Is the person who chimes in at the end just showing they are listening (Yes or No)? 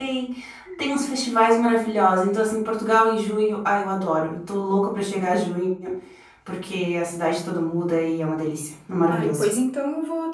No